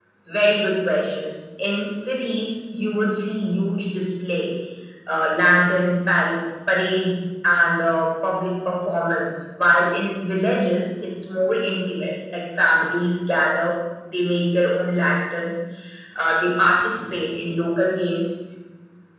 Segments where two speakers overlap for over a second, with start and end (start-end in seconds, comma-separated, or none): none